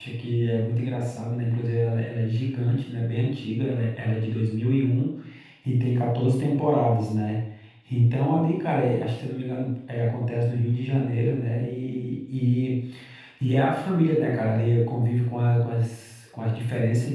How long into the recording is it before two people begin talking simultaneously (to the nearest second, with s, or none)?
none